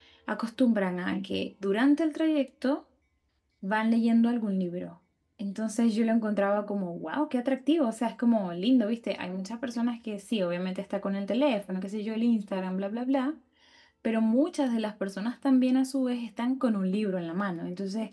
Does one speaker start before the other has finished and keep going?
No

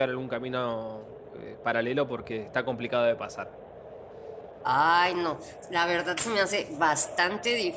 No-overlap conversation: Yes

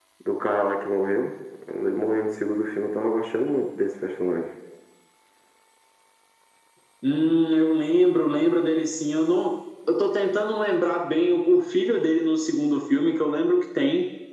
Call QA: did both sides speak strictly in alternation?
Yes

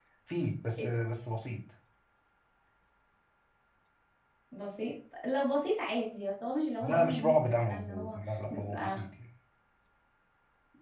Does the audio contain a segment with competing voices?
Yes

